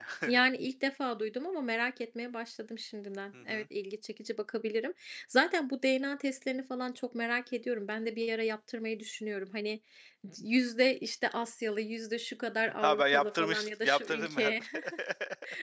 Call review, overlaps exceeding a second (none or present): present